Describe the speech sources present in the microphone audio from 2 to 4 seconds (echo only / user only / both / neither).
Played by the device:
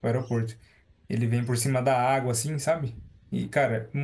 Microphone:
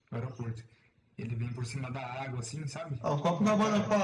both